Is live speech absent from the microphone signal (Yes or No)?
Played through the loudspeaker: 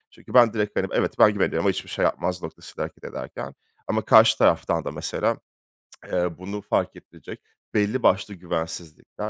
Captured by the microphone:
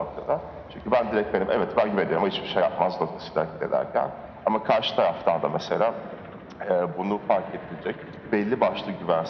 Yes